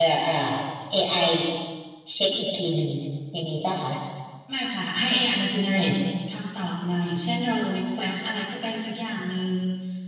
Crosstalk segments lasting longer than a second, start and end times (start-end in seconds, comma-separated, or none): none